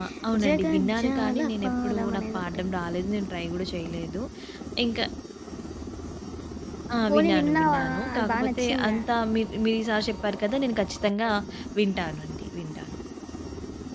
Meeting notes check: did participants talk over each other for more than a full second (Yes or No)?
Yes